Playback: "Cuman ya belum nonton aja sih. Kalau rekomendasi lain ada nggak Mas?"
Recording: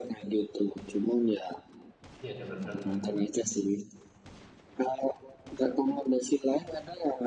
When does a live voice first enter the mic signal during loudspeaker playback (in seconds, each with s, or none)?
2.2 s